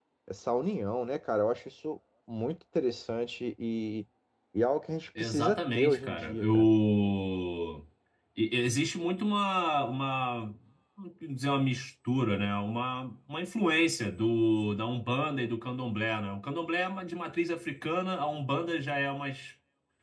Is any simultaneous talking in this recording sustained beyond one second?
Yes, from 5.2 s

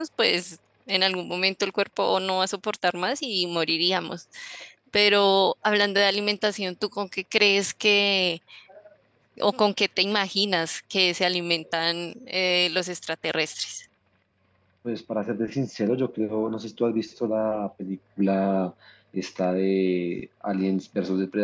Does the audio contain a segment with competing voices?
No

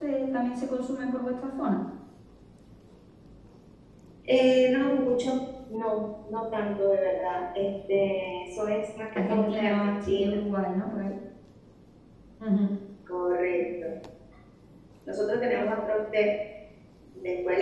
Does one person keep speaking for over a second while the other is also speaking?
Yes, from 9.2 s

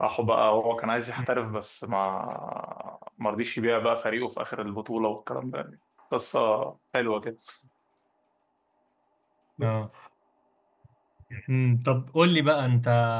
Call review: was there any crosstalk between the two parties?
No

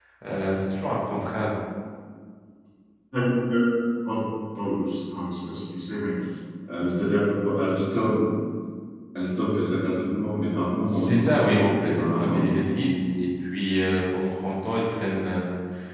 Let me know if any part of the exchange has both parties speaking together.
Yes, from 10.8 s

